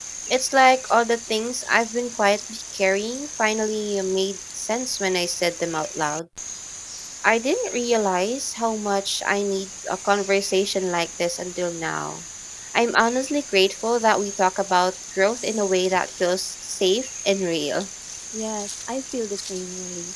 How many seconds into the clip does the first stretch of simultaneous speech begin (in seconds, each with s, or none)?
none